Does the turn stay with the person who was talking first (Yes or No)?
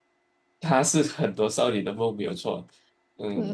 No